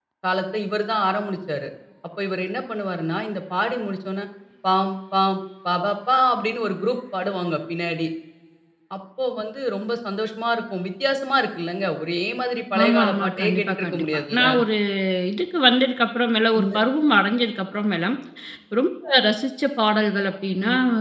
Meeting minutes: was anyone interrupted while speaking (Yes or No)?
Yes